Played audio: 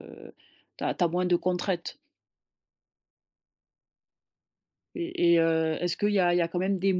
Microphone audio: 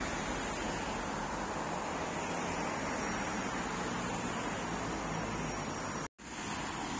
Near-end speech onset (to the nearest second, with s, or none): none